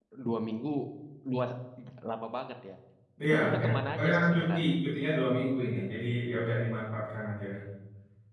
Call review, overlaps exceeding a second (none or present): present